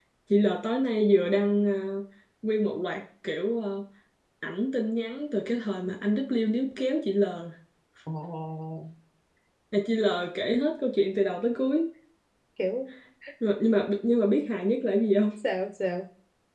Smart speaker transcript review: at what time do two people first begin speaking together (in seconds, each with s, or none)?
none